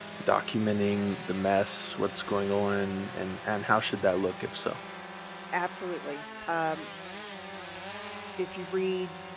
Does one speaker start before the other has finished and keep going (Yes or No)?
No